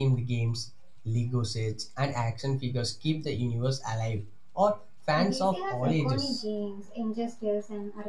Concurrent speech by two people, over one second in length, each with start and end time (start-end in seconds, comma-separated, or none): 5.2-6.4